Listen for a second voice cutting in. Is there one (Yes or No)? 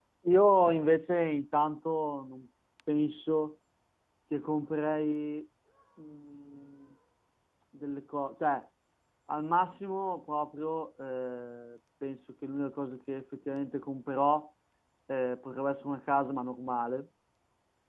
No